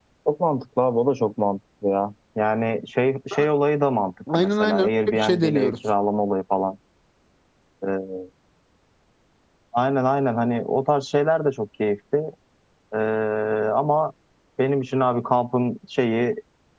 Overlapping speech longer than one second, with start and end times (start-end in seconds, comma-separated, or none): 4.3-5.7